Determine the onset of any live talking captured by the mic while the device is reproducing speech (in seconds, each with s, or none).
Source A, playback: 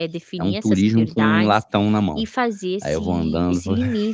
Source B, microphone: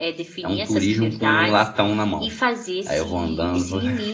none